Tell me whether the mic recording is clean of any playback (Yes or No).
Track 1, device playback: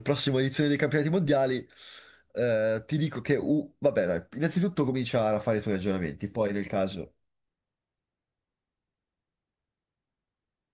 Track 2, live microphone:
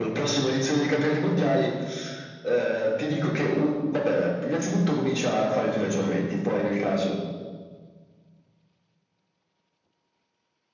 No